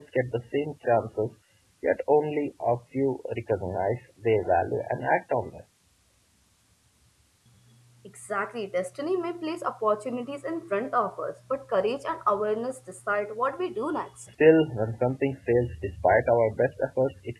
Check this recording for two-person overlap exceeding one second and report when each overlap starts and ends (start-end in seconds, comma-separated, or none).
none